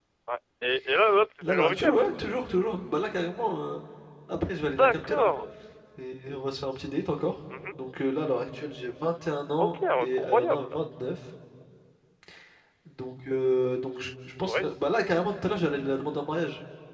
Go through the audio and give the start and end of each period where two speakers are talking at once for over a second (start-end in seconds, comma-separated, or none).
9.6-10.8